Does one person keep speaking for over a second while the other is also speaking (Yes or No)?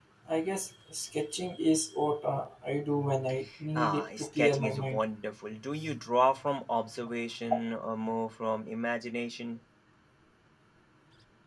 Yes